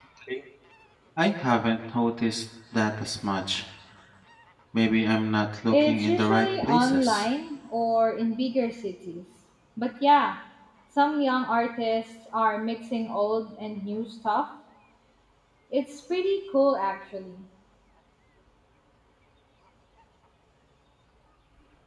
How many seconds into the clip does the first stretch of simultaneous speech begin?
5.7 s

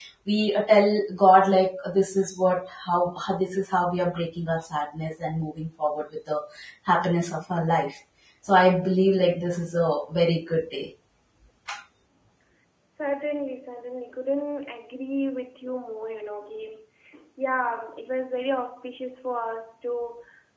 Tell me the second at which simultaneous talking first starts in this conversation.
none

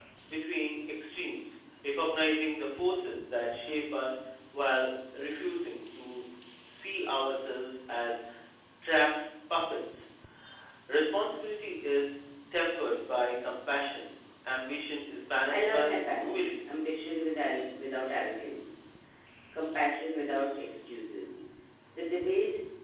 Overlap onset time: 15.5 s

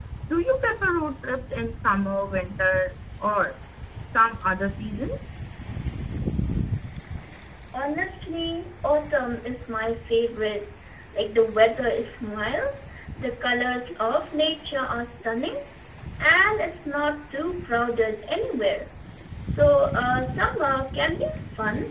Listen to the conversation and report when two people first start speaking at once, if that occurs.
none

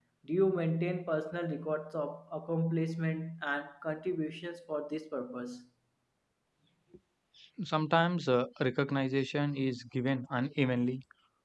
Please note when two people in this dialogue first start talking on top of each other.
none

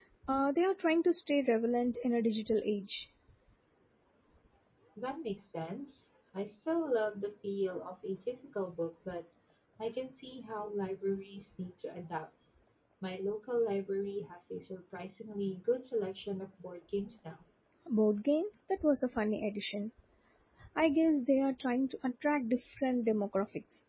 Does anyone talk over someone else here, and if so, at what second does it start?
none

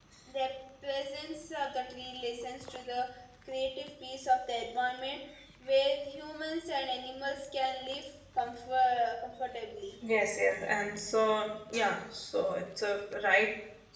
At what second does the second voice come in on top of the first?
none

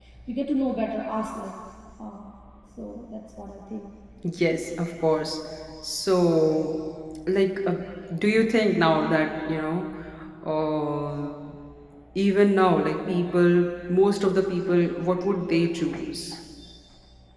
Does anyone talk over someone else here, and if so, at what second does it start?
none

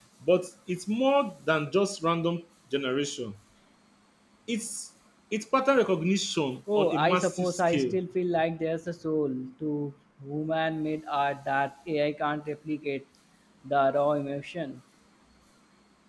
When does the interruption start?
6.7 s

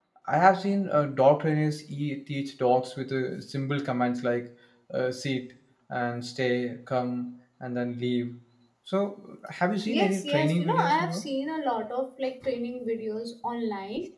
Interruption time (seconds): 9.9 s

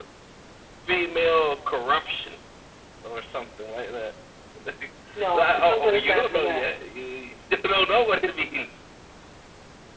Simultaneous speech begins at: 5.3 s

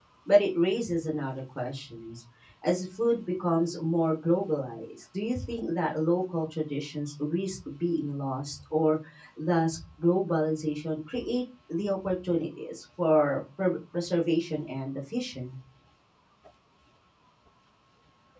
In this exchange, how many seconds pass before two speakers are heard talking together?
none

